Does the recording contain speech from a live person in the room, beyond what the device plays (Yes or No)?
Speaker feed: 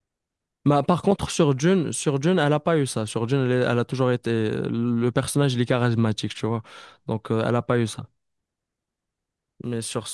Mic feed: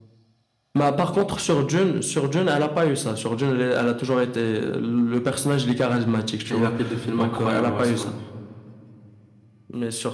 Yes